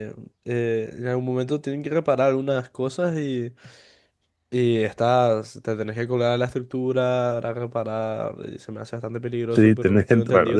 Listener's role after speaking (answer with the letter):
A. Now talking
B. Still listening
A